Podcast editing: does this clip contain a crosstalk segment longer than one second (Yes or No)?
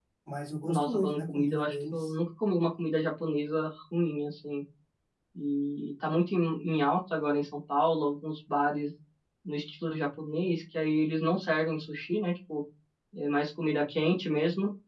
Yes